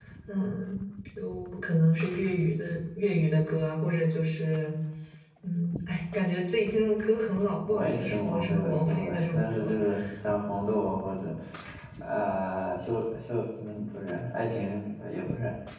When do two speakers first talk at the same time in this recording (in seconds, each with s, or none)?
7.7 s